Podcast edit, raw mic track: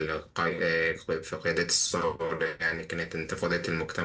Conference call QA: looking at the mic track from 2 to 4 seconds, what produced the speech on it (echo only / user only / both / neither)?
echo only